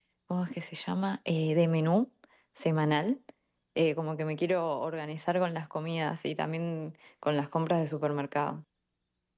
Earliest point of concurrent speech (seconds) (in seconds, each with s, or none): none